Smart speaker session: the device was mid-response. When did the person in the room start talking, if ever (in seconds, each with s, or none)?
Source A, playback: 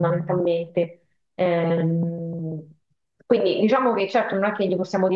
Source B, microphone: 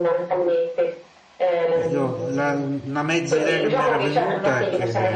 1.7 s